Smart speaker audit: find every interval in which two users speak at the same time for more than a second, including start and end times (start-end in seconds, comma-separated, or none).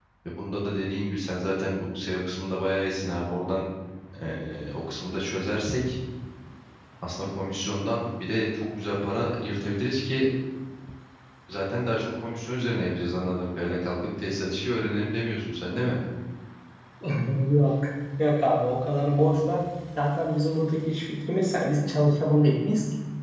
none